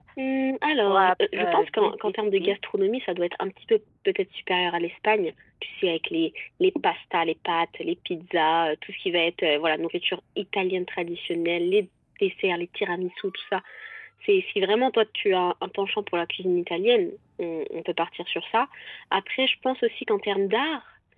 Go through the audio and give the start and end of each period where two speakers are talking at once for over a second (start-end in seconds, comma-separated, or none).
0.9-2.5